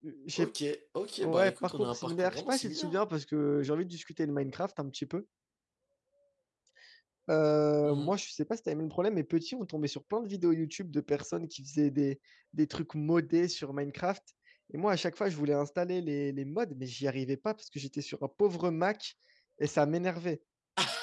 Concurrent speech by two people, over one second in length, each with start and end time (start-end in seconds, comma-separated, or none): 1.2-2.9